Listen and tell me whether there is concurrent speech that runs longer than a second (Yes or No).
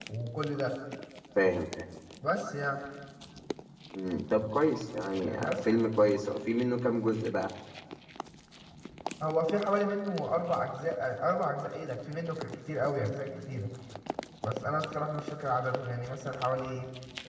No